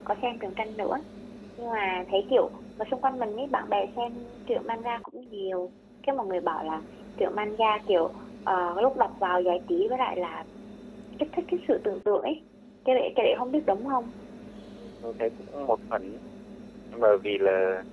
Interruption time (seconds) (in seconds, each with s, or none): none